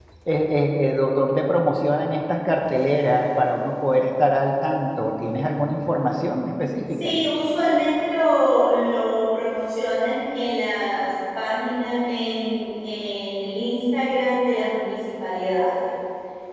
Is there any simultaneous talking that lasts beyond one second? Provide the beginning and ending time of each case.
none

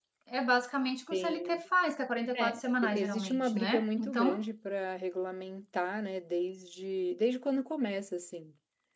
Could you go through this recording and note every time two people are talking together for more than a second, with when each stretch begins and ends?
2.3-4.4

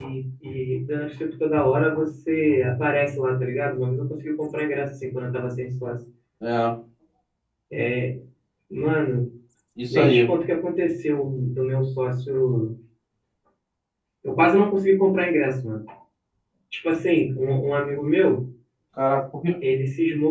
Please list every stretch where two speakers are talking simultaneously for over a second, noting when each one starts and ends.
none

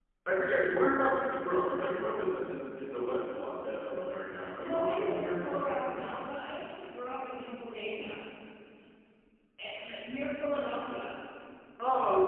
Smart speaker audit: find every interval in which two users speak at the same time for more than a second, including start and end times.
4.6-5.8

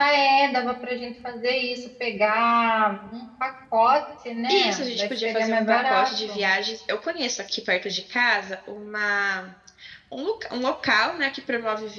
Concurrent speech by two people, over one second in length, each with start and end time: 4.5-6.5

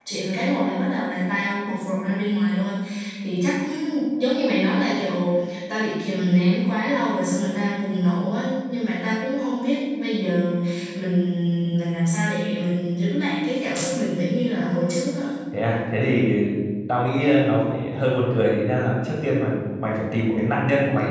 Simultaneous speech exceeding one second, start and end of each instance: none

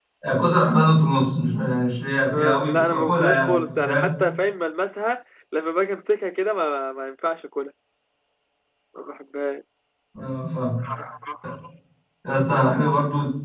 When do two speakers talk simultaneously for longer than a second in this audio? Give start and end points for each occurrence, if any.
2.3-4.1

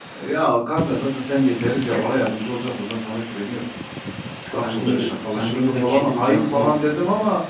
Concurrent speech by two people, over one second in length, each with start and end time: 4.5-6.7

